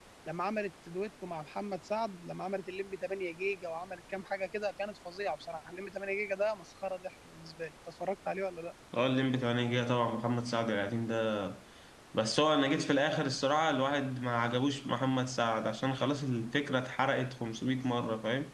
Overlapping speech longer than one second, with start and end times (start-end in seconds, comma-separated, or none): none